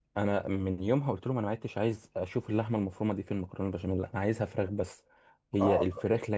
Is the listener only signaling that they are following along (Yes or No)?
No